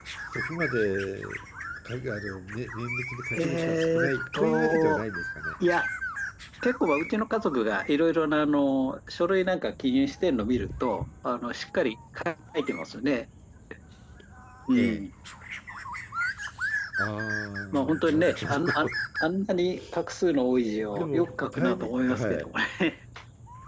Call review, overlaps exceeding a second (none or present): present